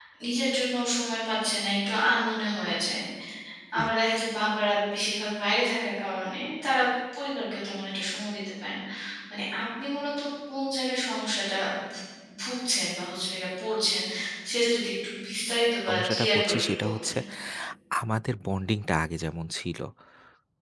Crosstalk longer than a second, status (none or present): present